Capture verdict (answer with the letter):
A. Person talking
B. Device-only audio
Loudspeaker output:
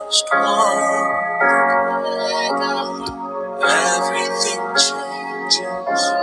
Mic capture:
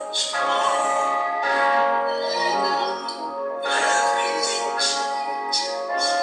A